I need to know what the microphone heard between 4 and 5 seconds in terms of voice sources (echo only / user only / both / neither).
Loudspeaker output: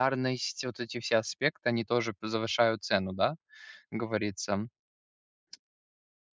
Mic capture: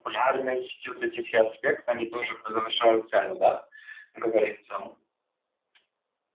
echo only